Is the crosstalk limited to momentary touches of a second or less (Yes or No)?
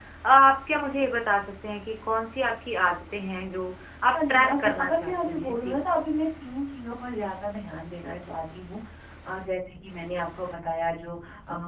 No